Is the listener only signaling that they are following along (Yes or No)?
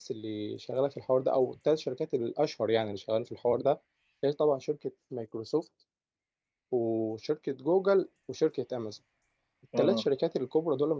Yes